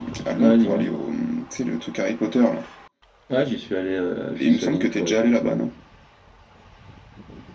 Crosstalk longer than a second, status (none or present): present